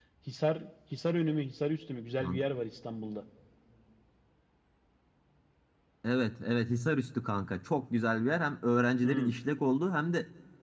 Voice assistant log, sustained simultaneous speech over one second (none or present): none